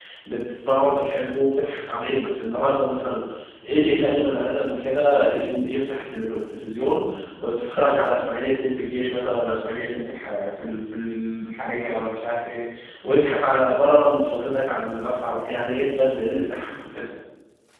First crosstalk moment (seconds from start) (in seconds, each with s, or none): none